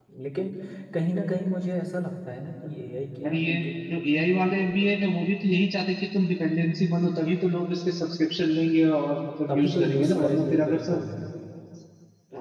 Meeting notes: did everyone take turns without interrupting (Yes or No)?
No